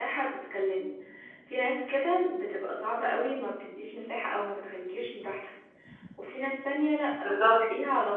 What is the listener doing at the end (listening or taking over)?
listening